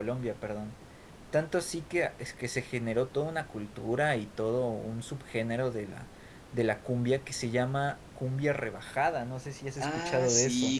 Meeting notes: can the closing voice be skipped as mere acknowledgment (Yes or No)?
No